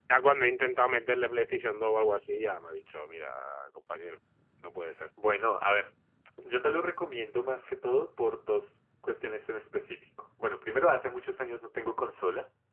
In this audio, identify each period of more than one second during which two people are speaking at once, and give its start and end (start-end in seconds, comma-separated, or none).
none